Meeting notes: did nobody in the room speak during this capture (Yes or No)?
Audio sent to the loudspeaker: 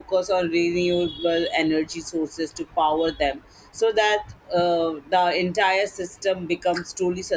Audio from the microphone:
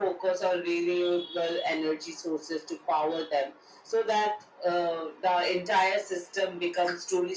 Yes